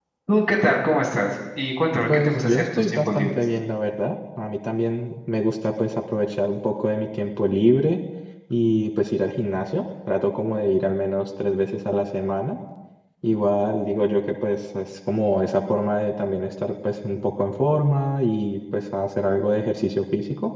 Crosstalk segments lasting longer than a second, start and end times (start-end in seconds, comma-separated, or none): 2.1-3.3